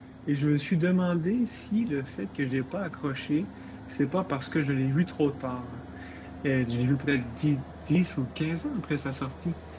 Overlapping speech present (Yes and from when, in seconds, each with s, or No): No